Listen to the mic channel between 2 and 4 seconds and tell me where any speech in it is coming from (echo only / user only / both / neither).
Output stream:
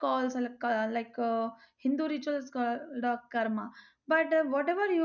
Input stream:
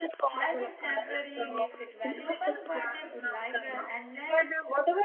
both